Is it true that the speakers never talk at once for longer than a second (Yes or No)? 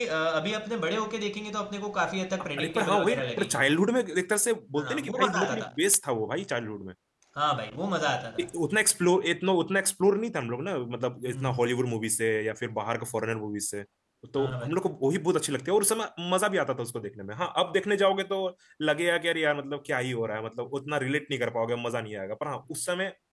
No